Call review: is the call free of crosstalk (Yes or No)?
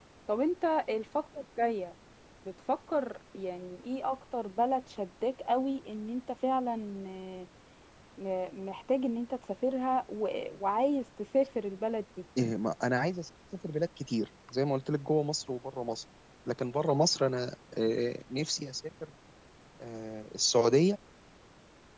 Yes